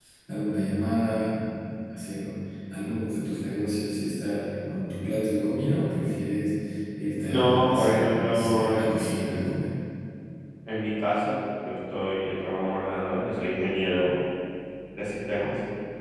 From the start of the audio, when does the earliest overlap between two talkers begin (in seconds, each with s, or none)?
7.3 s